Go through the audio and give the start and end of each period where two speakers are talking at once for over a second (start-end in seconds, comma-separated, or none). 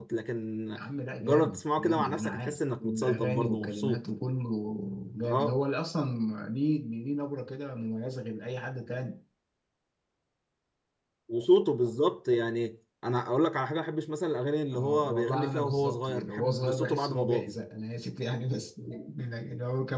1.2-4.0, 14.7-17.5